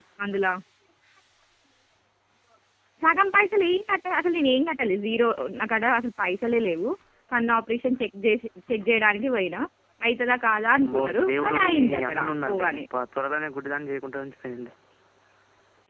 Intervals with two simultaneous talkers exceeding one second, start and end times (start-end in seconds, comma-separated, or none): 10.8-12.7